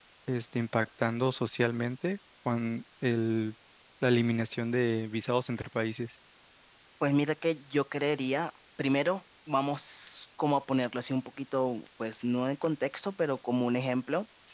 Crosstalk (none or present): none